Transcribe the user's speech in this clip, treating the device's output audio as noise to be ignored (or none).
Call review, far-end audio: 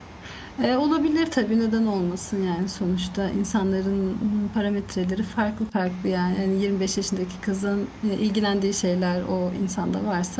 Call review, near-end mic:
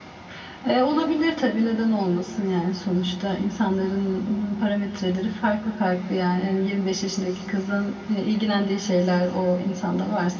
none